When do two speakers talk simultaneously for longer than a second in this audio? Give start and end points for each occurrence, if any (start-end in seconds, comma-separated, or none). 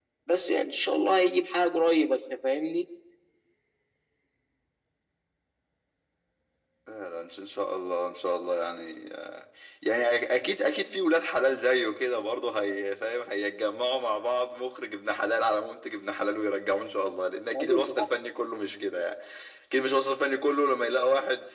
none